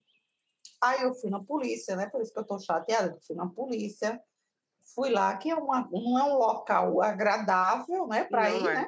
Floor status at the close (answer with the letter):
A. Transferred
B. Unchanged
B